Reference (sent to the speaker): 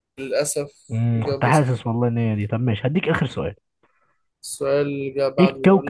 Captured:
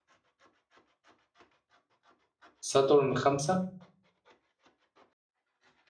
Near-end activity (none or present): present